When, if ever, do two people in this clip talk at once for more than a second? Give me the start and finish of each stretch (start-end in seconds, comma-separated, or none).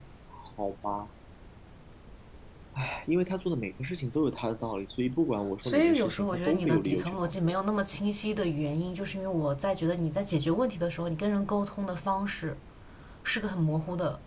5.6-7.5